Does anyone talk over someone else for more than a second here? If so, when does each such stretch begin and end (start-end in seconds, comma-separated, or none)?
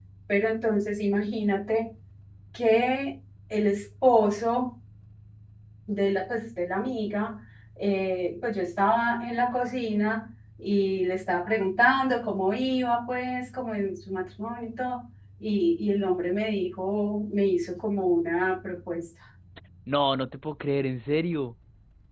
none